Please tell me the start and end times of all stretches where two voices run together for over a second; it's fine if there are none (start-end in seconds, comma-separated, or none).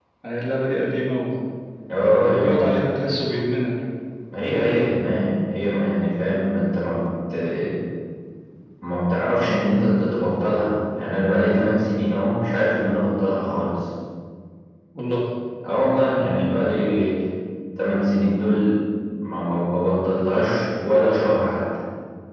none